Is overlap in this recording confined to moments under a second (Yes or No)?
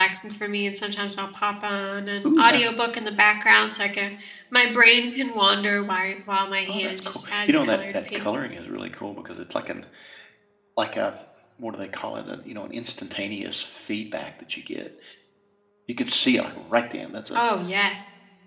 No